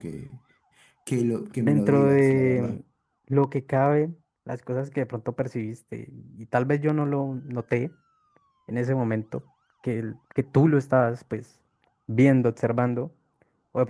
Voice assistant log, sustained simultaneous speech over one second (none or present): present